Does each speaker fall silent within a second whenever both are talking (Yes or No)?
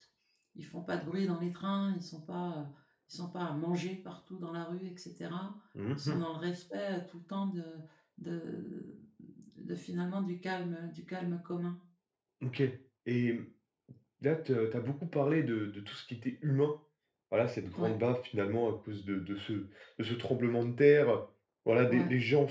Yes